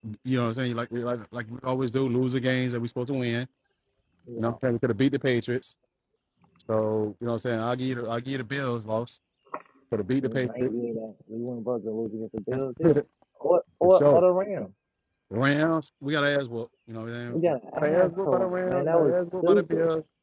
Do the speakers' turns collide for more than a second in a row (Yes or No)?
Yes